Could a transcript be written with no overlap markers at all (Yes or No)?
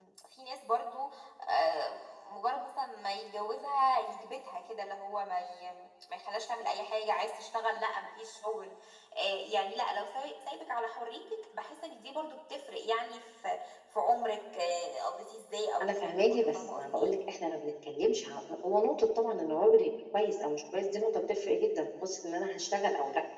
No